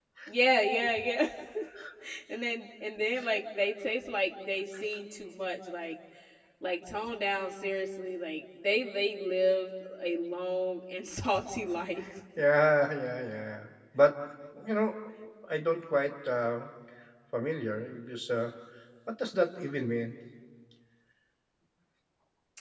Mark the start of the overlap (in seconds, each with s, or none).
none